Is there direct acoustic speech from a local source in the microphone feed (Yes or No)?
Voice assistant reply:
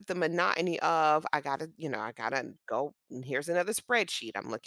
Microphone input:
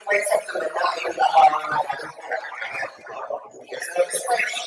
No